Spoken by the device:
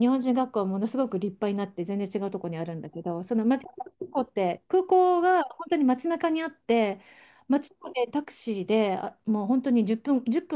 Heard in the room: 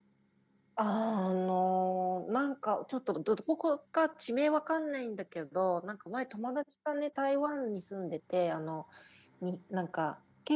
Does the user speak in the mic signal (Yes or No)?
Yes